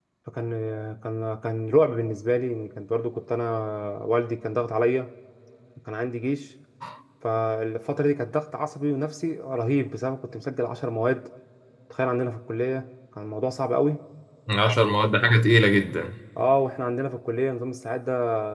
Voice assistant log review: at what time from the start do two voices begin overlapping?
none

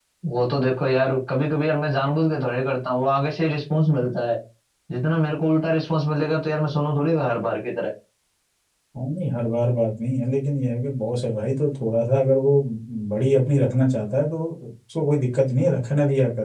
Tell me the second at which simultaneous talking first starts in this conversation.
none

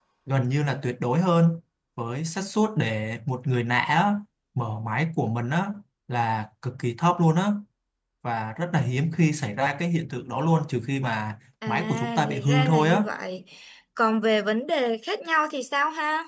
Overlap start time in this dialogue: 11.6 s

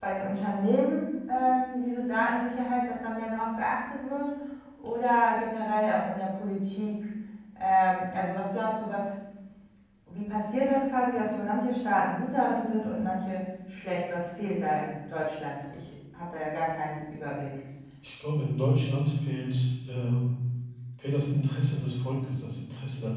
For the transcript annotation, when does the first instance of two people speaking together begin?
none

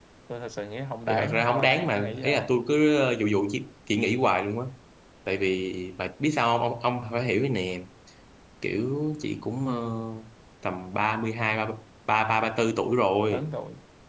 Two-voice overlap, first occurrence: 1.1 s

